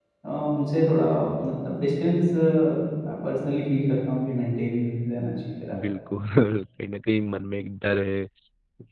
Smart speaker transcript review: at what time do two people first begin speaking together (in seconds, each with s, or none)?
none